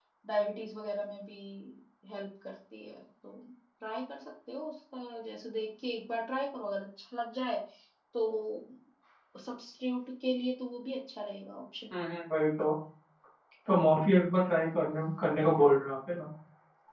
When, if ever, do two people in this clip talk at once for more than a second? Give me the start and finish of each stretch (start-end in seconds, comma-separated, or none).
none